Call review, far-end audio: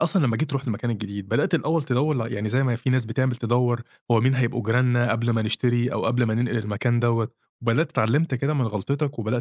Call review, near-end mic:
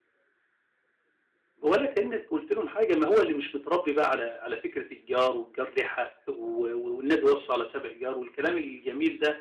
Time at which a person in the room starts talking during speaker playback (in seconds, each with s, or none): 1.6 s